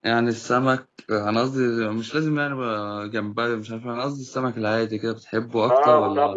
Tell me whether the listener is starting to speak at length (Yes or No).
Yes